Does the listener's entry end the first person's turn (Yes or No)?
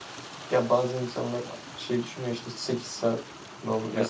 No